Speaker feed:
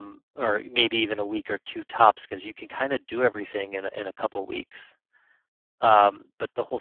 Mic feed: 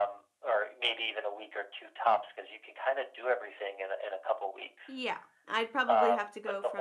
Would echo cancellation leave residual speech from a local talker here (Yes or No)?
Yes